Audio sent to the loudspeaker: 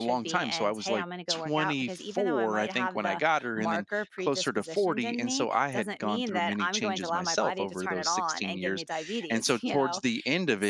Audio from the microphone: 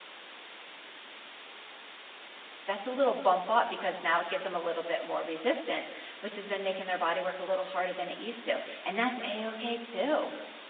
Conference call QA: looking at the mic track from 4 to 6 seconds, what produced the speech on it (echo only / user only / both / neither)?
user only